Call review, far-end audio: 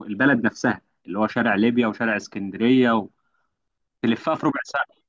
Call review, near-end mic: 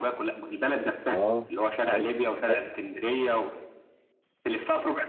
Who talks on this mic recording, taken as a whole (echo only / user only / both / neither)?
both